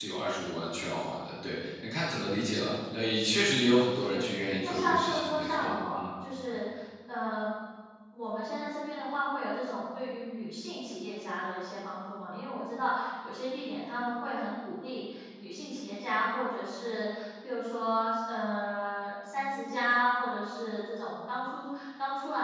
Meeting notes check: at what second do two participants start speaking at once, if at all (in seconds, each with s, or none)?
3.9 s